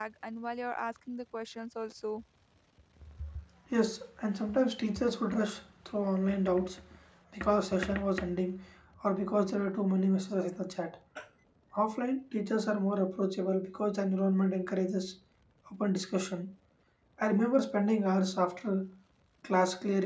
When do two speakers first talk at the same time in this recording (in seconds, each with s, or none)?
none